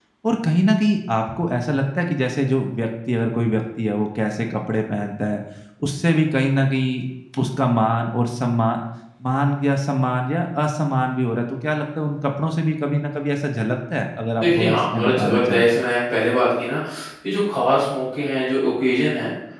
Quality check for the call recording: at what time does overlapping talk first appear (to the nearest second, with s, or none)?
14 s